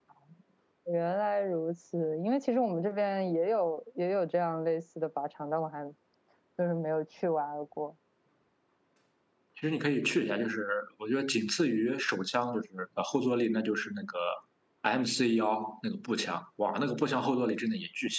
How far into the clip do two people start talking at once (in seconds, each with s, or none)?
none